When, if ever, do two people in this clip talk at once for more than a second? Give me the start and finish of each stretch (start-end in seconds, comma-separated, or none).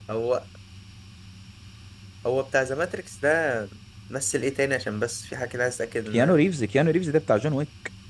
none